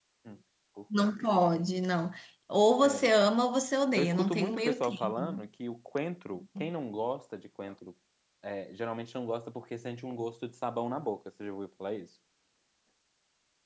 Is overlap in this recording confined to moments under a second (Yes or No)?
No